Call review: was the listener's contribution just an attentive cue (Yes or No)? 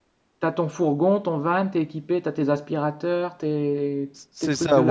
No